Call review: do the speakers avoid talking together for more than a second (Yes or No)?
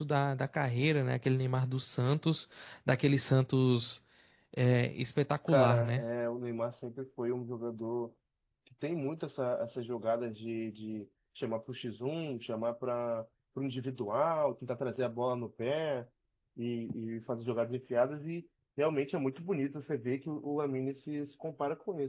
Yes